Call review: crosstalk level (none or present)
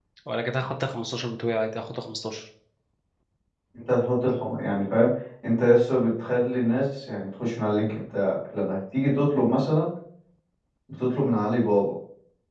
none